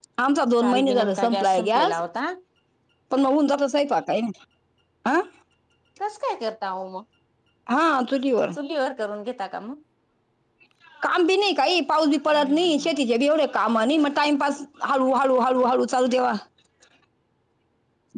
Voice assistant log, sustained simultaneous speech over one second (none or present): present